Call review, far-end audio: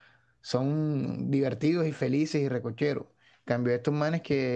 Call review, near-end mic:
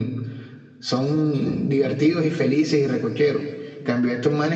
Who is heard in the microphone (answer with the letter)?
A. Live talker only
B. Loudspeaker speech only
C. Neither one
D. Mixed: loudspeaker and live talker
D